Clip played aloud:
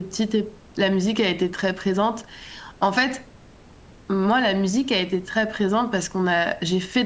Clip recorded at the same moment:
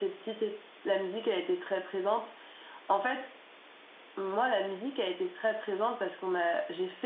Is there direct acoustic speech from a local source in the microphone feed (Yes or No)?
No